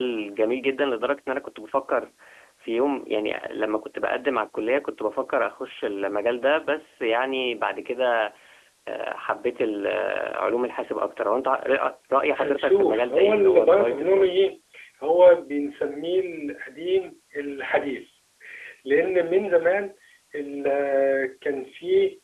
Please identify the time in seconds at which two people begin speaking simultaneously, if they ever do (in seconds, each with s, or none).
12.3 s